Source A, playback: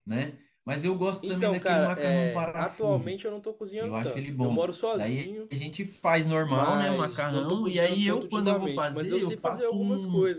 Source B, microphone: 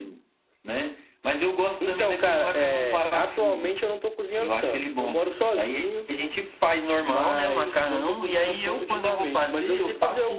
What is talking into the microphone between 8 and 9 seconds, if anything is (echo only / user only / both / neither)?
echo only